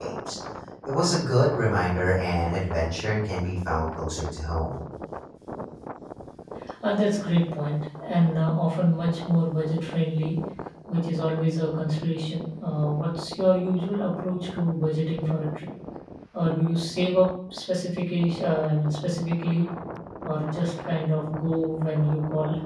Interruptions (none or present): none